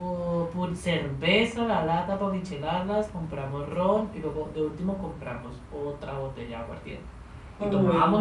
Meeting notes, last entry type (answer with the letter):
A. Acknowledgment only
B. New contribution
A